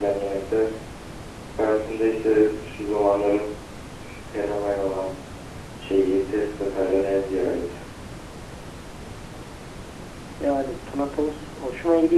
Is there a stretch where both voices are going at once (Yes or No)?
No